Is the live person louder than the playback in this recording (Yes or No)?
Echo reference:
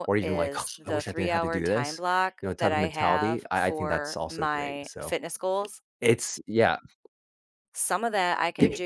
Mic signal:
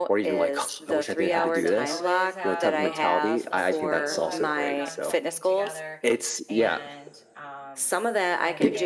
No